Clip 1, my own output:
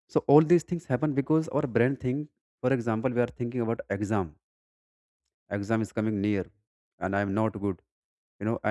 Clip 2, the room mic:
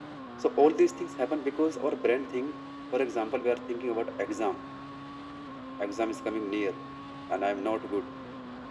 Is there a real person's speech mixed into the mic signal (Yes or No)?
No